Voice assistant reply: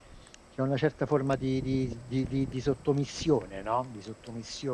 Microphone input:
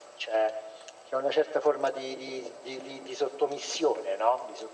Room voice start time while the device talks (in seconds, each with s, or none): none